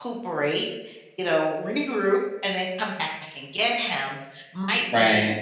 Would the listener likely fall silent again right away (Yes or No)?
Yes